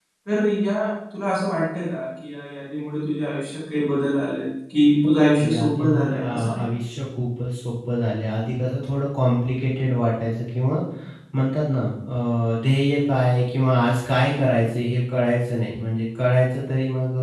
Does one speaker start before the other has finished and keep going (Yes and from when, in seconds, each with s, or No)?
Yes, from 5.0 s